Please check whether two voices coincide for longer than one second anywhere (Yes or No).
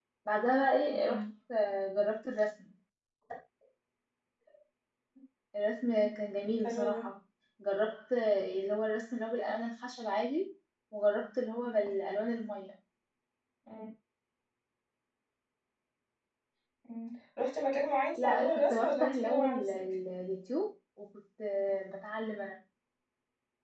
Yes